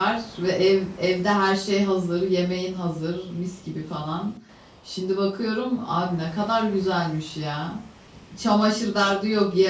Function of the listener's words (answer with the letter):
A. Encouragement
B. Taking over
A